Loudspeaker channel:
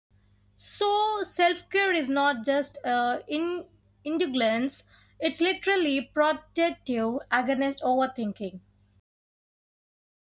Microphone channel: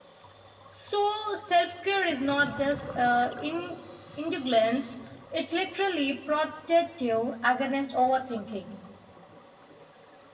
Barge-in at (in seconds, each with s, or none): none